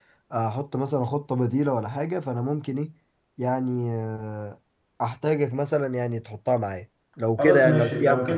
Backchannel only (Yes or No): No